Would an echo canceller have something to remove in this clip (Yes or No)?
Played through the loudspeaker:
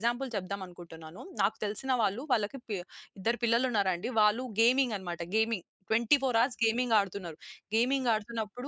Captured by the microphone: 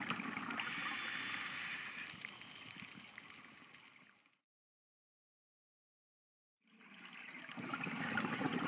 No